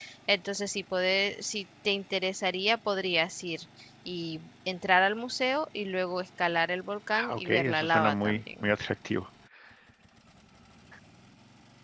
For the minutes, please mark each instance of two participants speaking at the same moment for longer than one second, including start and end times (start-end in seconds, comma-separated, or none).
7.1-8.7